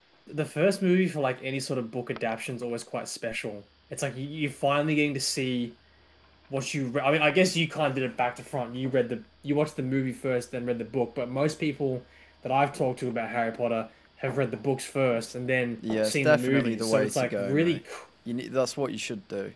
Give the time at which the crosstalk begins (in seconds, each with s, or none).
15.8 s